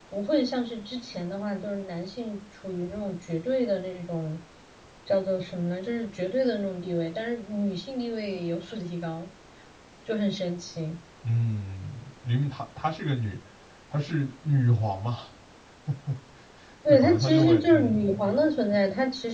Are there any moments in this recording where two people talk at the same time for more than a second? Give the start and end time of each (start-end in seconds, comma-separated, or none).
16.9-18.2